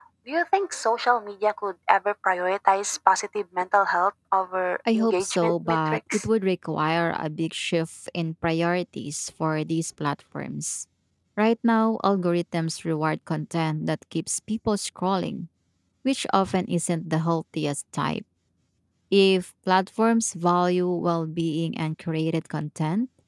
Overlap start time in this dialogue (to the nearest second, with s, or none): 5 s